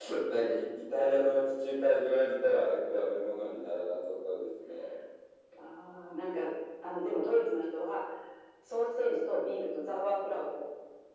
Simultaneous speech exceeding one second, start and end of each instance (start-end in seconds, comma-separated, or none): none